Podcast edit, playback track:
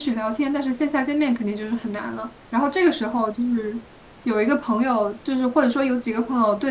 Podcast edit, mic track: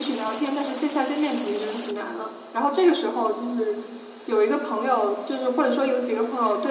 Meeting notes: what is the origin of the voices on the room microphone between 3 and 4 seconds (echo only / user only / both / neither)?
echo only